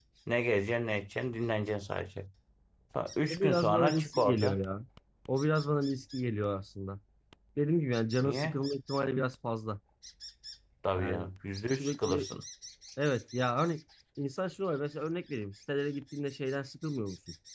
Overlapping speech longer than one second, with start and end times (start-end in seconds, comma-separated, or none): 3.3-4.6